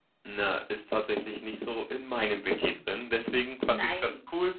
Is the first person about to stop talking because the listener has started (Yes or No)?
No